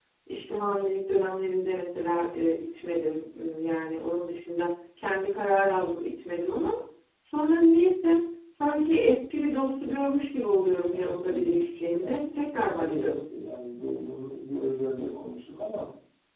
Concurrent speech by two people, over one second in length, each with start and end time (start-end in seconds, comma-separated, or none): 10.9-12.2